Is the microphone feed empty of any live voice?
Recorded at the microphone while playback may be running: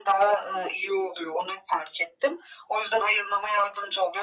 Yes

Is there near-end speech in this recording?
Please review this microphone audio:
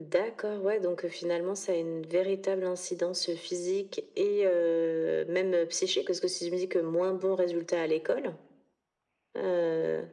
No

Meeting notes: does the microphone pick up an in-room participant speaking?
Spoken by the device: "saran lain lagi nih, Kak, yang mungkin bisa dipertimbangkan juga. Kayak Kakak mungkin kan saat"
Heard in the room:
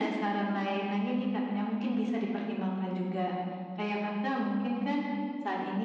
No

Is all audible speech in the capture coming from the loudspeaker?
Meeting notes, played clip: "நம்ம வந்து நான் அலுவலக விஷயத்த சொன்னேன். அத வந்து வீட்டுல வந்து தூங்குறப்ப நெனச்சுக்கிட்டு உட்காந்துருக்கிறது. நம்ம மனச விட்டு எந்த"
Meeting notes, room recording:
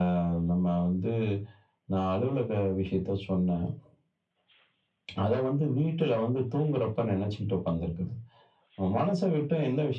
Yes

